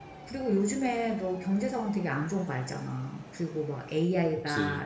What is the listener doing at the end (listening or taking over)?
listening